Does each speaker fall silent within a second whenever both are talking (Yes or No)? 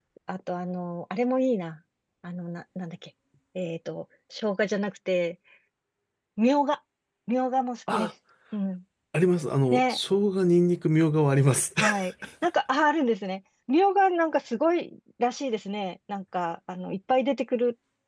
Yes